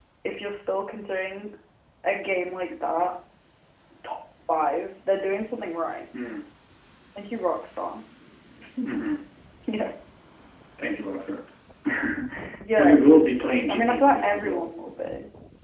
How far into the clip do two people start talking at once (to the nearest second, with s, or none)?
13 s